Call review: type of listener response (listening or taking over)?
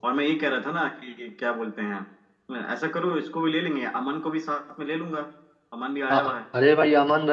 taking over